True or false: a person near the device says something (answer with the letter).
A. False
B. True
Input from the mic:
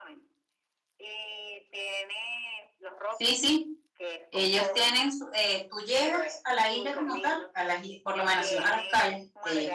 B